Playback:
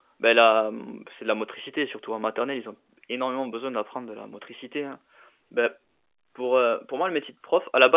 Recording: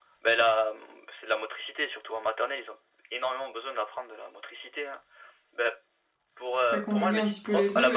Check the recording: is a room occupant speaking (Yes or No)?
Yes